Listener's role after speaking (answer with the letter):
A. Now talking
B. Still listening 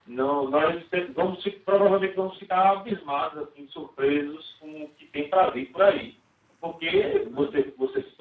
B